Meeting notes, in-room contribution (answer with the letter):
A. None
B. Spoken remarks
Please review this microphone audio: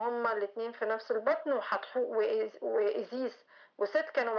A